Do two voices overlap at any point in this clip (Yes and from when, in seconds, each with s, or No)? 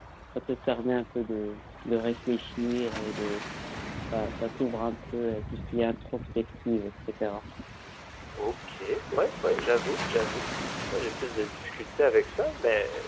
No